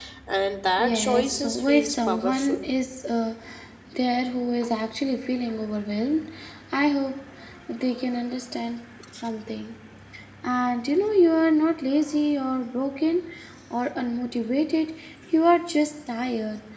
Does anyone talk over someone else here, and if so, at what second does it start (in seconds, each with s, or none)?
0.8 s